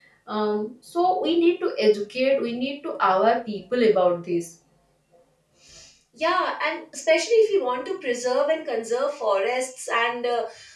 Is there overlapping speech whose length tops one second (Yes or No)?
No